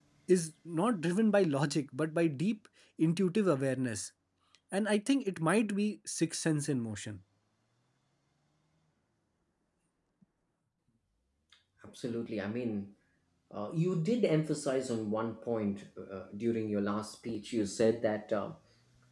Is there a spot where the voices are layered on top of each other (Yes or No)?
No